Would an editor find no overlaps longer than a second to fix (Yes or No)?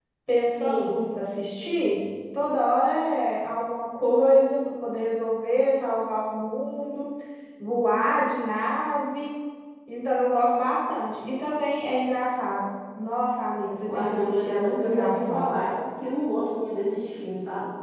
No